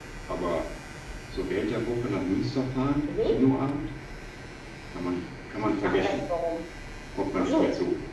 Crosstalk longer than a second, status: none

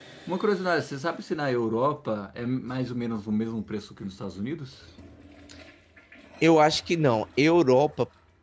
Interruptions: none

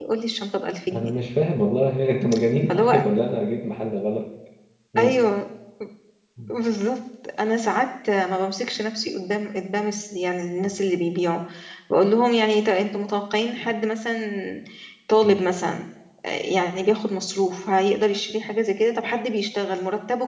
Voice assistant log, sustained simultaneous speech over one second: none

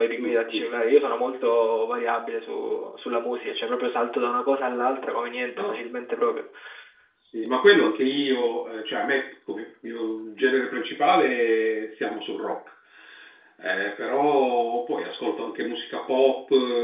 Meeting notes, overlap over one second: none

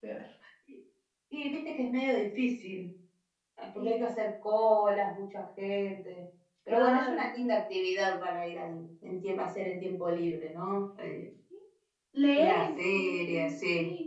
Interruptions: present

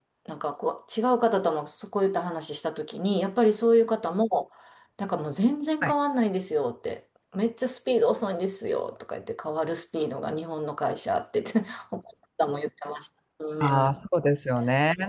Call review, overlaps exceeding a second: none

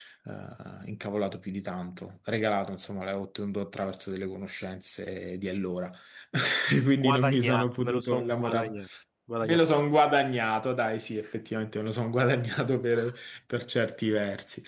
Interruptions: present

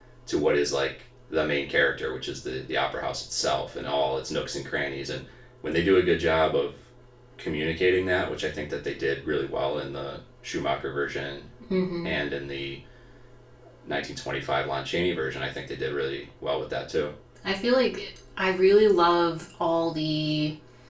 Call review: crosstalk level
none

